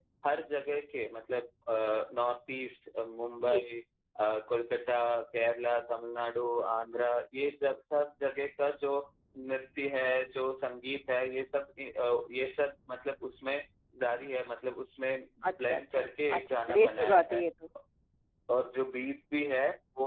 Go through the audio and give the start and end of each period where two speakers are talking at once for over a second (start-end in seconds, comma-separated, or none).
15.5-17.4